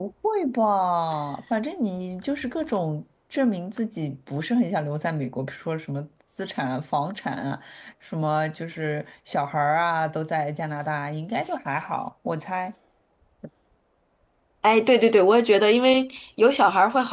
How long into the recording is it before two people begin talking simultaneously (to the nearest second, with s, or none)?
none